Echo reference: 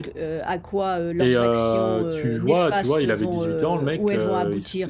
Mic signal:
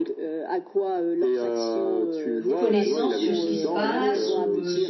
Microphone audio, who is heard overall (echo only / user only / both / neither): both